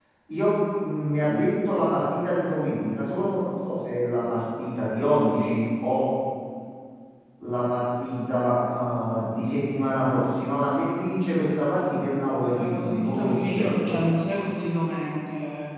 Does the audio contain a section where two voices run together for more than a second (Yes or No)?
Yes